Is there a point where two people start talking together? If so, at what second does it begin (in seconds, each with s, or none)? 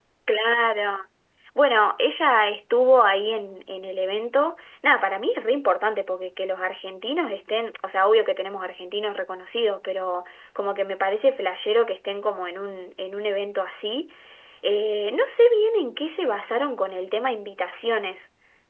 none